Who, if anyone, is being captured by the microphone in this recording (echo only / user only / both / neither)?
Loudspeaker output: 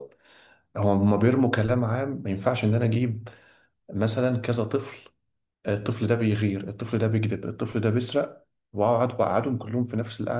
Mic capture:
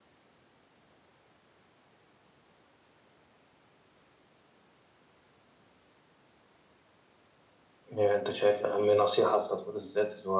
user only